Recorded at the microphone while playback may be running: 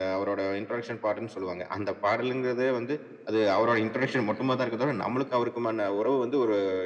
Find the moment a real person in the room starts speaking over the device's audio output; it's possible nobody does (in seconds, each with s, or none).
none